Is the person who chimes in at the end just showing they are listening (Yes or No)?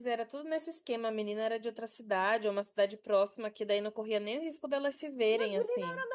No